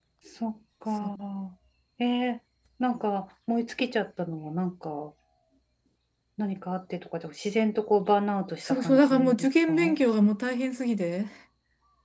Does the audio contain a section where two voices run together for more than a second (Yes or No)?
Yes